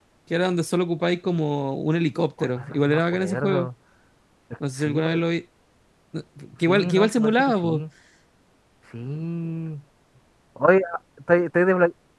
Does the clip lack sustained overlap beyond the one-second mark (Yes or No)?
No